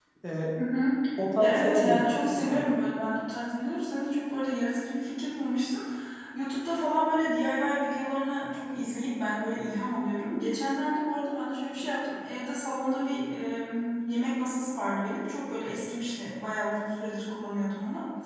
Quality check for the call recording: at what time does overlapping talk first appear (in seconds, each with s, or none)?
1.4 s